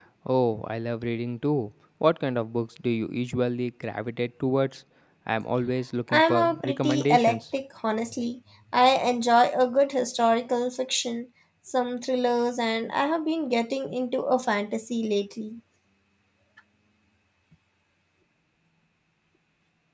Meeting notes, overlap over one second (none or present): present